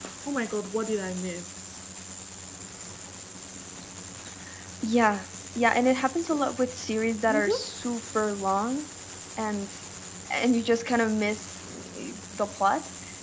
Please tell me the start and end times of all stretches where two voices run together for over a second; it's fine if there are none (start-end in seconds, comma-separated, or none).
none